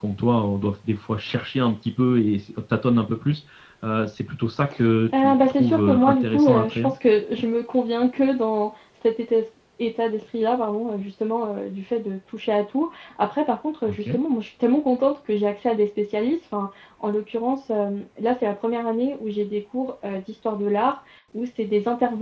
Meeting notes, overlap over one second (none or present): present